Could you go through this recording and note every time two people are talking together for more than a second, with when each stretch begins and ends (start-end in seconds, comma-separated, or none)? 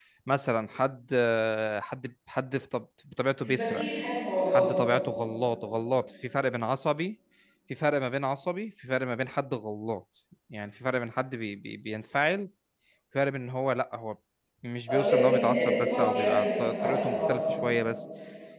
14.9-17.3